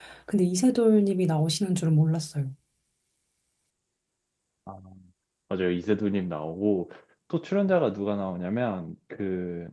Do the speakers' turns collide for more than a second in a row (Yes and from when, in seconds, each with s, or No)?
No